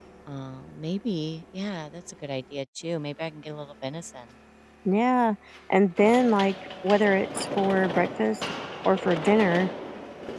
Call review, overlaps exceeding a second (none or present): none